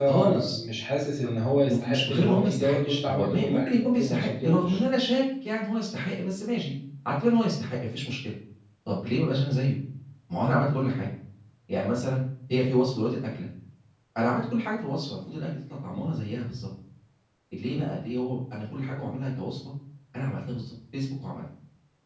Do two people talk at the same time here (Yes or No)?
Yes